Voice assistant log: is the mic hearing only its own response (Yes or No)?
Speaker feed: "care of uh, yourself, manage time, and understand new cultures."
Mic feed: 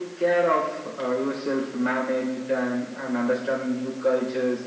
Yes